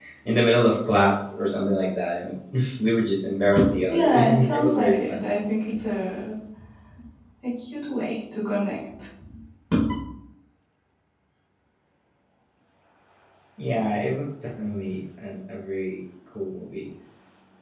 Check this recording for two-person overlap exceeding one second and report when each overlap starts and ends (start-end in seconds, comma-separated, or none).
3.9-5.2